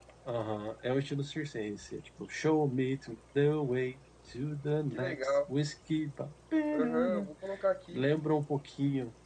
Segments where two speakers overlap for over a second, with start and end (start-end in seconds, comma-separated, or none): none